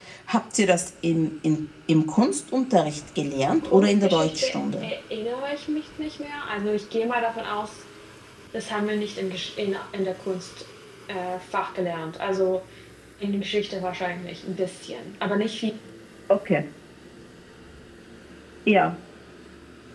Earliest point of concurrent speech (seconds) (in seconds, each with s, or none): 3.6 s